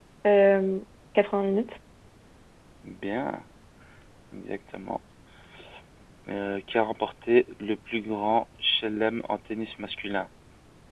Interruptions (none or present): none